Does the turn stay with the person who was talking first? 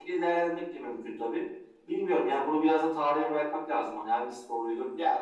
No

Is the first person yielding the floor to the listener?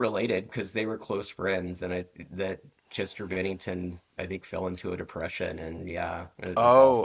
Yes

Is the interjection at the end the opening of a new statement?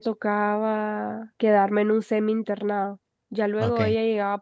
No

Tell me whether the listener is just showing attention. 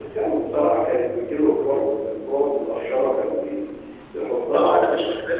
No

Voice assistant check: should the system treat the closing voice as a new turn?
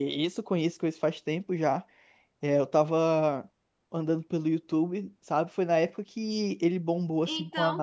No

